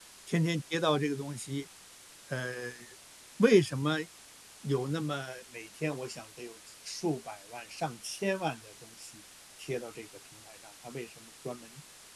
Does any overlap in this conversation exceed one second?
No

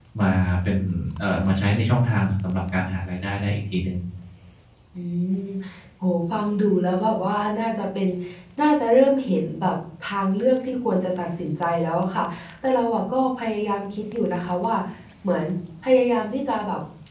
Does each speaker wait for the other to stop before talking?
Yes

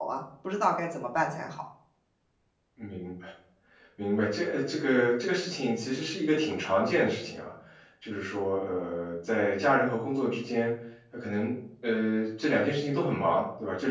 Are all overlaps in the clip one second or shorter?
Yes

